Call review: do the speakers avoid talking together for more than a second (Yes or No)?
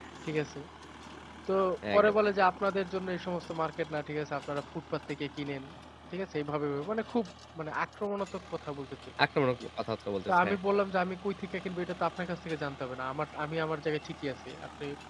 Yes